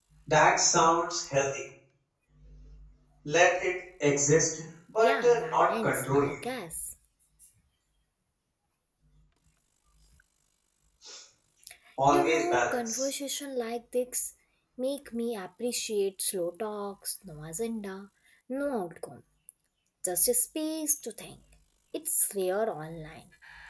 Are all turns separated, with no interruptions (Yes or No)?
No